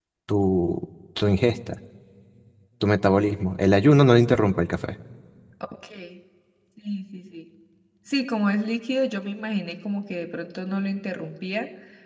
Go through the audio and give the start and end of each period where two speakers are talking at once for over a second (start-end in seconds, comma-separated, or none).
none